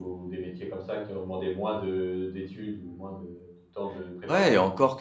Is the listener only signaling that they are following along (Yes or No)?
No